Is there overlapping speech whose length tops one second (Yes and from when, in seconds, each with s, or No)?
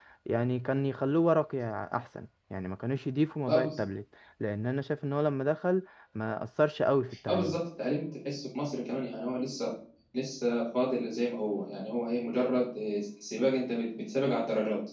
No